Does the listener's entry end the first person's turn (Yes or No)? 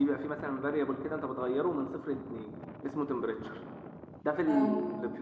No